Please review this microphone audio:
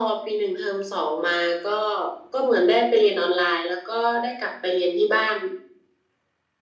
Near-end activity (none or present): none